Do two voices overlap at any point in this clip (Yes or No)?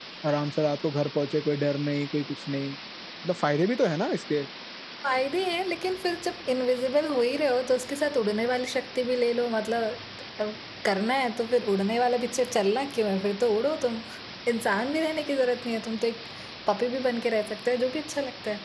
No